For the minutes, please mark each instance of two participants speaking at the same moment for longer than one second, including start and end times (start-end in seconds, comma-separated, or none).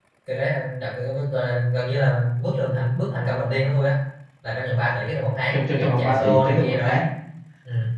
5.5-7.0